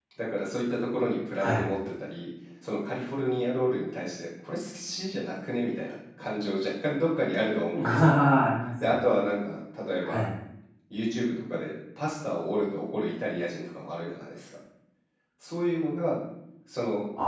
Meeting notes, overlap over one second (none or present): none